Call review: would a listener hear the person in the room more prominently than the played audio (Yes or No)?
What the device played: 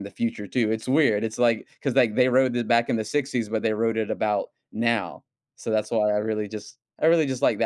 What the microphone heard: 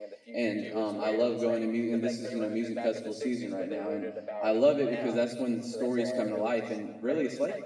Yes